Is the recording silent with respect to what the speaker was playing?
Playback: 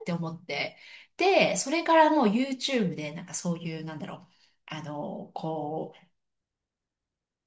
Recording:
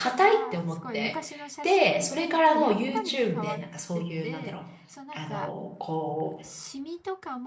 No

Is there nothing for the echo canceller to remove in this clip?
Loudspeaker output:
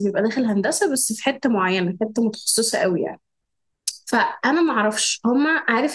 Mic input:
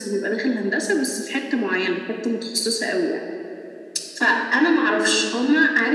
No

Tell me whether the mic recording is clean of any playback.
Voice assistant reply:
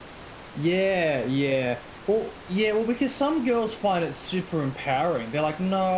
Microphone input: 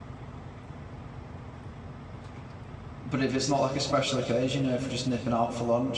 Yes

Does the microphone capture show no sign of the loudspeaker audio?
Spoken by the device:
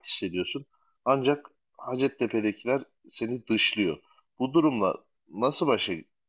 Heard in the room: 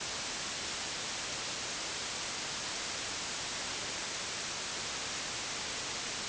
Yes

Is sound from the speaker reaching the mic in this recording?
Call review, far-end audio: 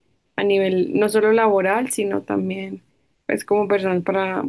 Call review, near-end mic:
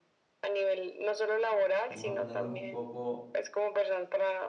Yes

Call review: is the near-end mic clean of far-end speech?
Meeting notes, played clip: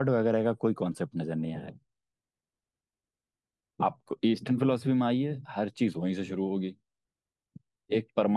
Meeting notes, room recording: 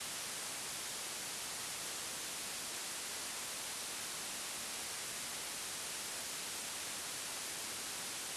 Yes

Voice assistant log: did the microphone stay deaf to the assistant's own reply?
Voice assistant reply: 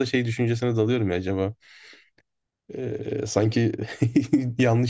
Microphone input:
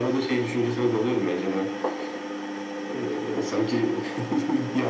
No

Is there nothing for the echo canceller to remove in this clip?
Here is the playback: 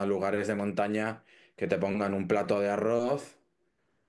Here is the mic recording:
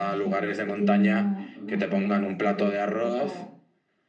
No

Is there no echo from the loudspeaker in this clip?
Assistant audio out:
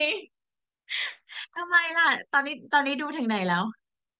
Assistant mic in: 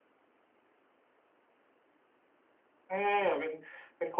Yes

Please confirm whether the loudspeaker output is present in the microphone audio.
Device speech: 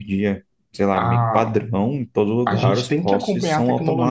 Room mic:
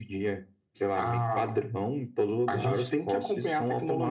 Yes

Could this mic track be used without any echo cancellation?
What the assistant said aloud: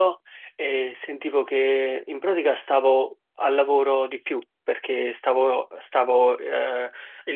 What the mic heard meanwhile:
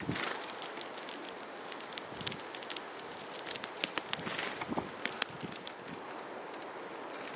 Yes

